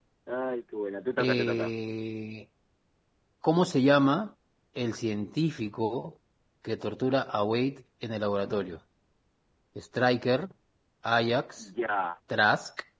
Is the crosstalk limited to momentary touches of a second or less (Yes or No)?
Yes